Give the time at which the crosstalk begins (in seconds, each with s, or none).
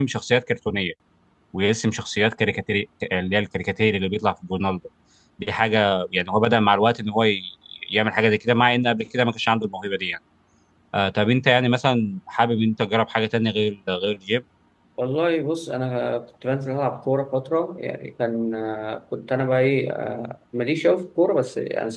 none